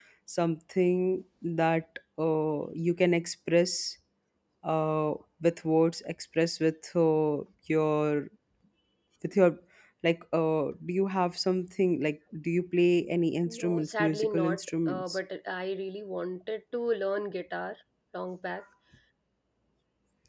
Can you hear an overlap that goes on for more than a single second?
Yes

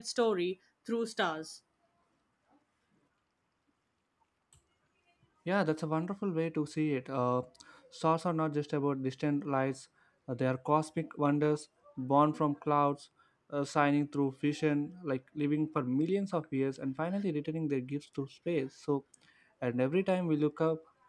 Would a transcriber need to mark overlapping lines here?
No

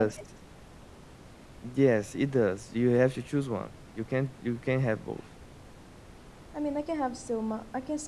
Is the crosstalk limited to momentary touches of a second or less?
Yes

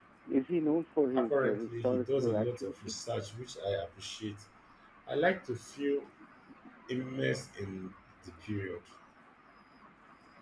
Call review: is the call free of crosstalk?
No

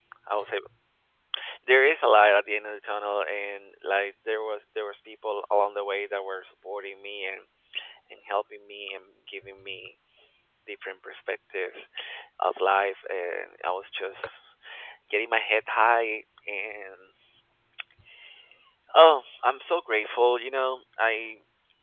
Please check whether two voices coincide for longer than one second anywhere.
No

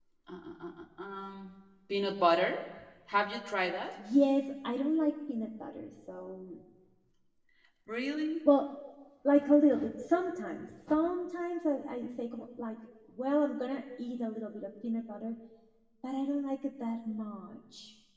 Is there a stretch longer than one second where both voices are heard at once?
No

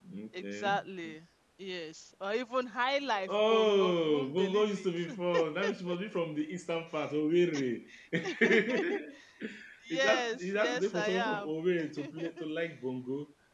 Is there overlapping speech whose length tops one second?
Yes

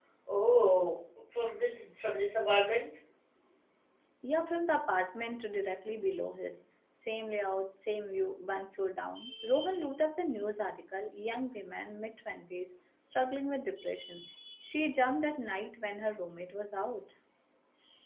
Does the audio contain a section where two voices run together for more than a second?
No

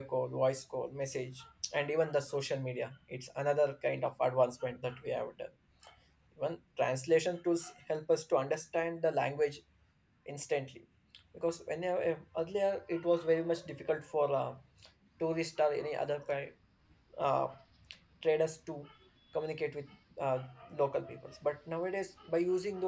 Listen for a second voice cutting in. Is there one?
No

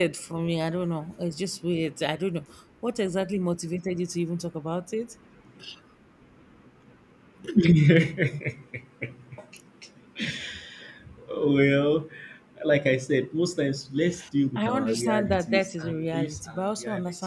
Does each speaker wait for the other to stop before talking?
No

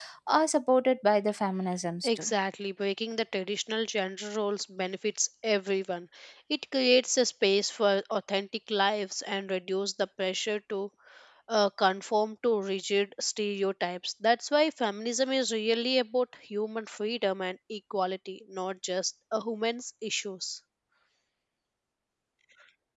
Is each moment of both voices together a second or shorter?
Yes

